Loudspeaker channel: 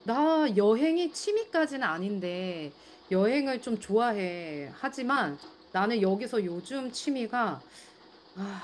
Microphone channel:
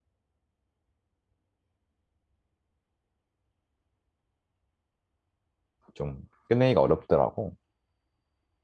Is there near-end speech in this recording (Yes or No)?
Yes